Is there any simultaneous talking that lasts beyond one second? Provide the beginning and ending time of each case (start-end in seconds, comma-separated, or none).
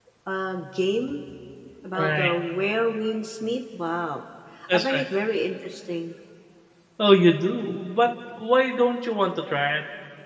none